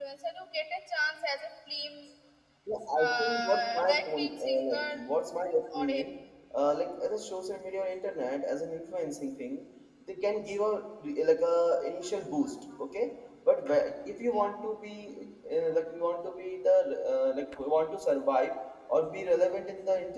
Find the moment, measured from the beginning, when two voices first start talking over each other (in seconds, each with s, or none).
3.0 s